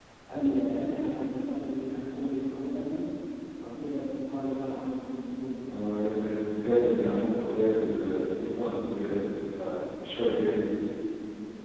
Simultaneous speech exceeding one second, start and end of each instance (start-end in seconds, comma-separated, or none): none